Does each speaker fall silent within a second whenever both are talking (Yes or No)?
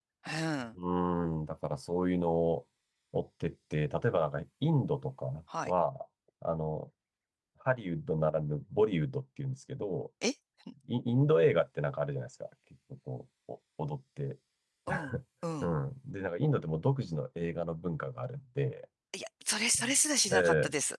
Yes